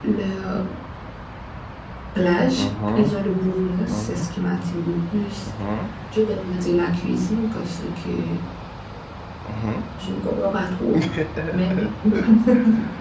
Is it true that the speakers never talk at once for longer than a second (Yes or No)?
Yes